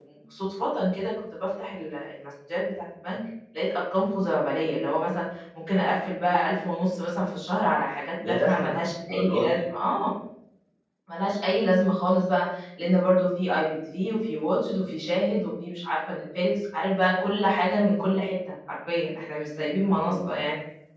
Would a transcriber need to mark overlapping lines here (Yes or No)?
Yes